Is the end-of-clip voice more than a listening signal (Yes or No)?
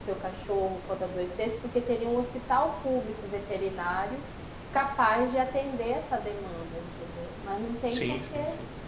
Yes